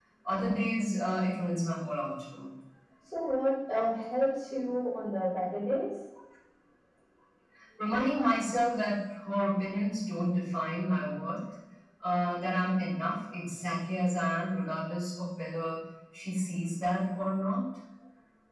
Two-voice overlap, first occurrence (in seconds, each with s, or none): none